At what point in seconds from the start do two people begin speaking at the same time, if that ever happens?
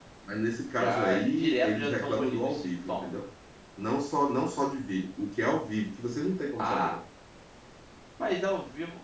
1 s

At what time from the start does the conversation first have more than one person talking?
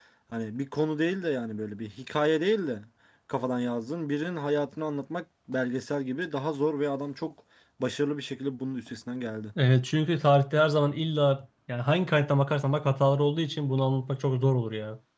none

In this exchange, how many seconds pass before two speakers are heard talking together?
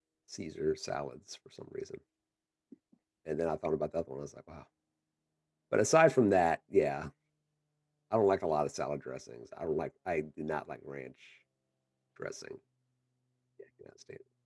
none

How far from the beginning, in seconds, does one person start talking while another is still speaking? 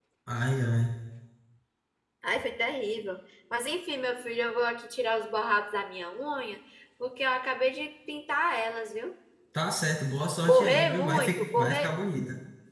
10 s

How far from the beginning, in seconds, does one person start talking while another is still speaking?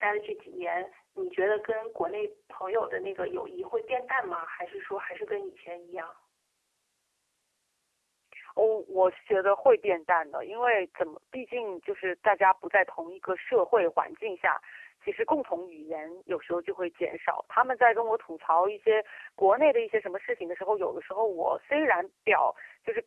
none

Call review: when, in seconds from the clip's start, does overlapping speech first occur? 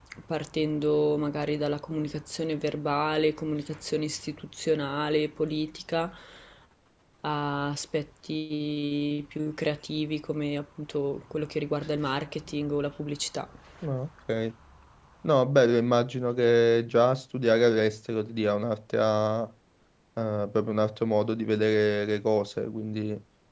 none

